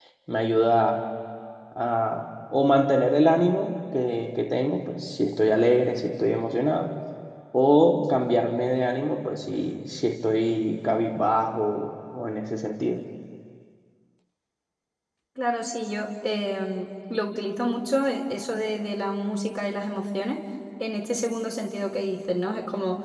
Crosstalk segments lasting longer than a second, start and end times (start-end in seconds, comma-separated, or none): none